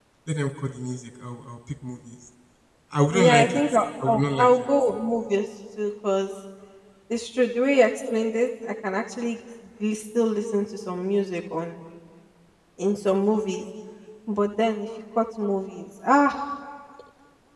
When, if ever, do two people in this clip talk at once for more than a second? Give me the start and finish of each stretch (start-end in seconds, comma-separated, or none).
3.1-4.6